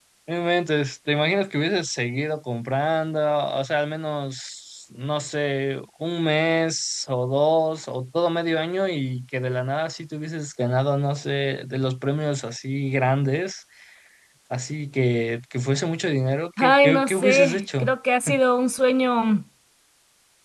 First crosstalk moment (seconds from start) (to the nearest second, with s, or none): 17 s